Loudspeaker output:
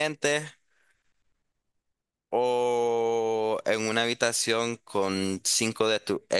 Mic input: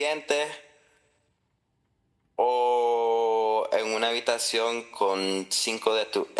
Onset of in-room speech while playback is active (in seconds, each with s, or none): none